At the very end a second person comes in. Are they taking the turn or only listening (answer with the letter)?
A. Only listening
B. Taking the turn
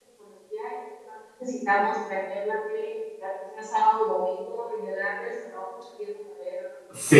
B